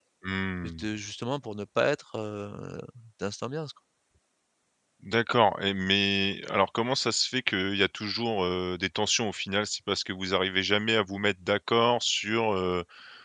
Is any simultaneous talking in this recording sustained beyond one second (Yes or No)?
No